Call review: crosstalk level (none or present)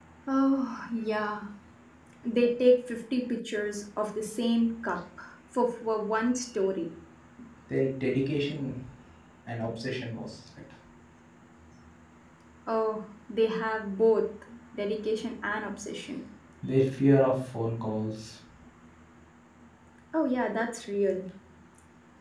none